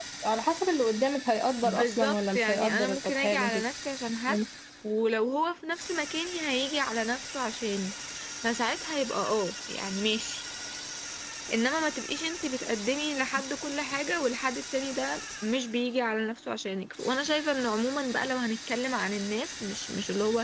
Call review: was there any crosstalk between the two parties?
Yes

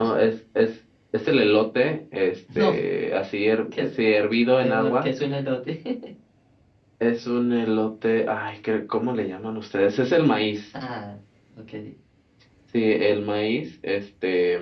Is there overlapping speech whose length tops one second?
No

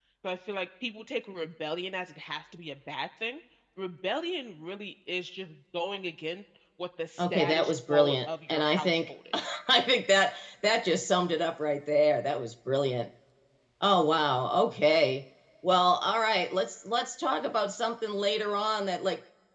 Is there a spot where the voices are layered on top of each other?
Yes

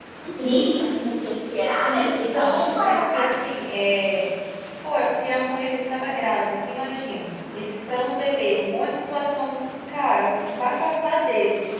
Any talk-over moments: Yes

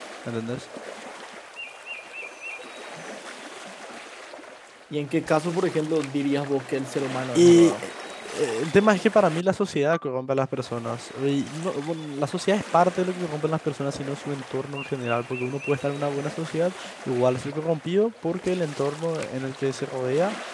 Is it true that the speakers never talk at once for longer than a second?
Yes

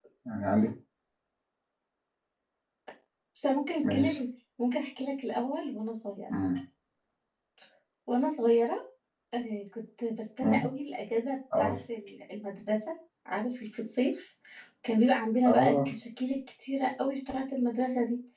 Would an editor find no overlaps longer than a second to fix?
Yes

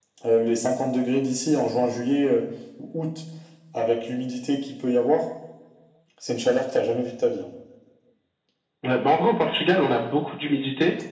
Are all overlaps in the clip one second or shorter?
Yes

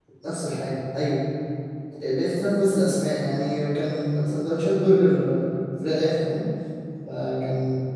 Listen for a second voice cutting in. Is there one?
No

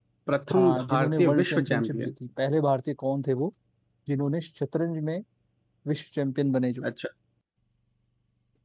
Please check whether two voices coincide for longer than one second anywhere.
Yes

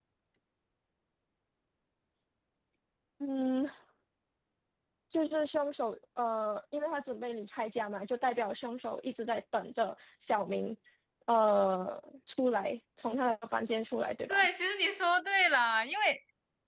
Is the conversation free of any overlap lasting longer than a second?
Yes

